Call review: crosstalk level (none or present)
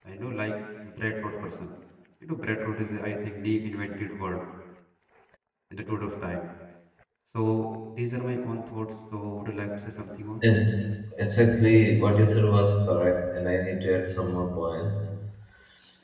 none